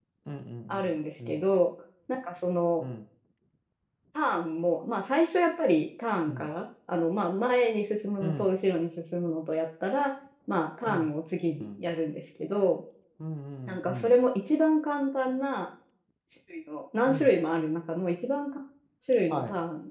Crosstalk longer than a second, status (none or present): none